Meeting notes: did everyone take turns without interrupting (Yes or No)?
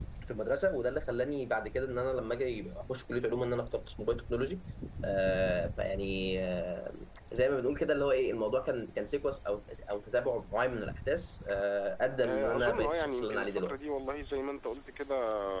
No